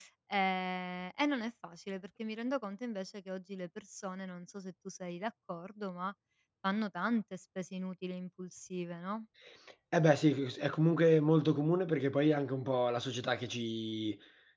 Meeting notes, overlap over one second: none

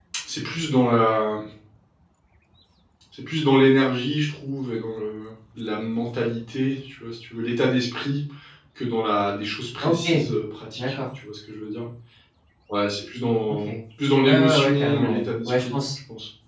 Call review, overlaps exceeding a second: present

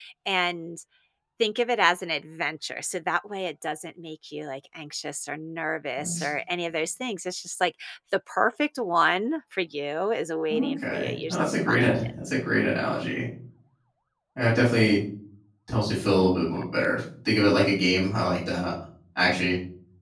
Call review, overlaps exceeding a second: present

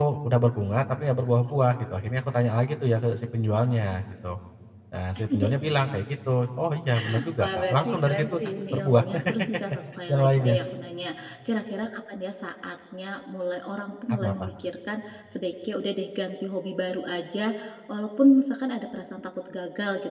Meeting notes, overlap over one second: present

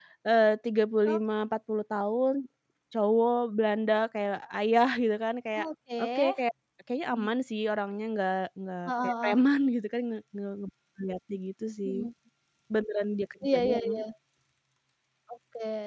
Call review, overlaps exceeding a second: none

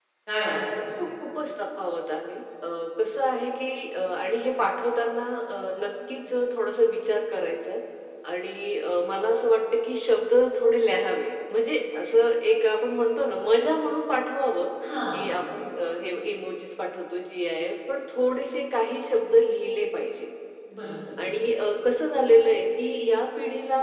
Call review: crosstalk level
none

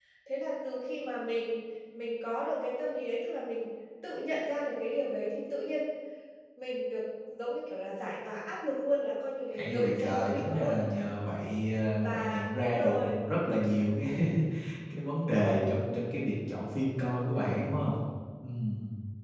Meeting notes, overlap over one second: present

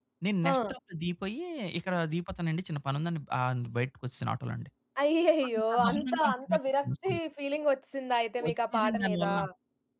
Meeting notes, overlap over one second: present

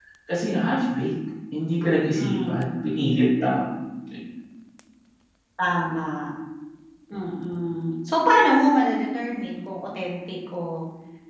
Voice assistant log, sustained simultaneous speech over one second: none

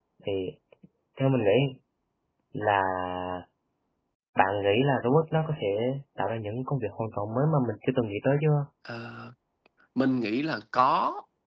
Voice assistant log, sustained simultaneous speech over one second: none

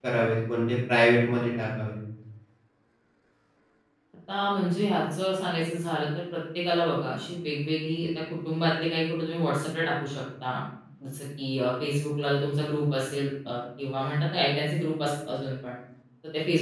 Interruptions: none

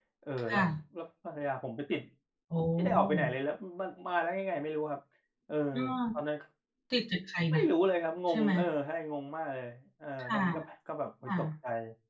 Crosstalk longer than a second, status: none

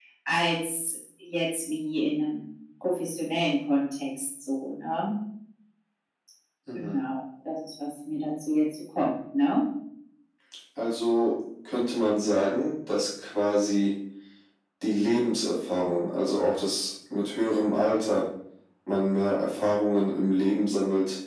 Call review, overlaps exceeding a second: none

